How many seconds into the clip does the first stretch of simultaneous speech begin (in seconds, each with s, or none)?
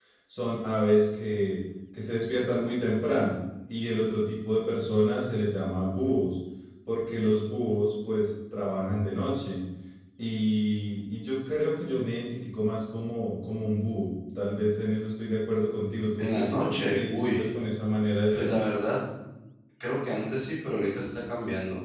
16.2 s